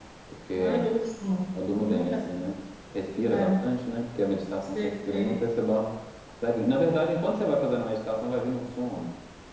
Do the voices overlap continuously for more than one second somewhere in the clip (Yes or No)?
No